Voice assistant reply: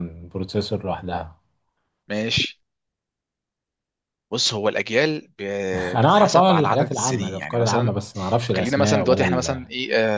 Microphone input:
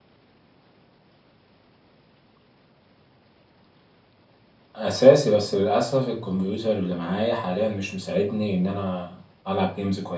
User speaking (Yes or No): Yes